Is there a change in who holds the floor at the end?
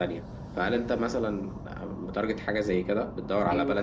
Yes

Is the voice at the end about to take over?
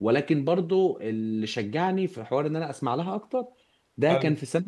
No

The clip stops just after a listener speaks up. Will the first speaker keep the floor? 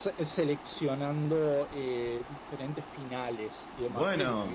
Yes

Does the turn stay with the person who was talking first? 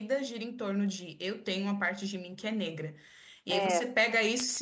Yes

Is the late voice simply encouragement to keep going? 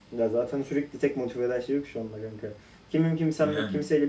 Yes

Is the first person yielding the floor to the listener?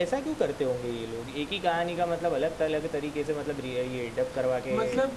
Yes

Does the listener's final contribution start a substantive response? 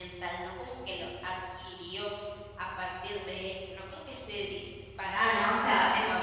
Yes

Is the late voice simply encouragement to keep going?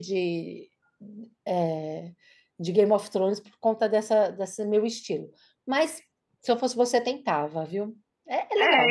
No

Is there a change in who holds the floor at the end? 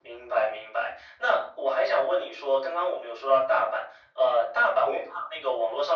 No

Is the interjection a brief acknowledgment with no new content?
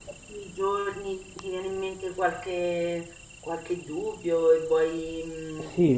No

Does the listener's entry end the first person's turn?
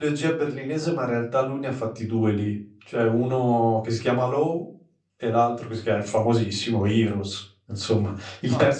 No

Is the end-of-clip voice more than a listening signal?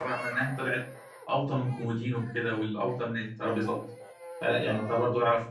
No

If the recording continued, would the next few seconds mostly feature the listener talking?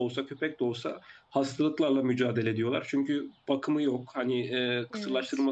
No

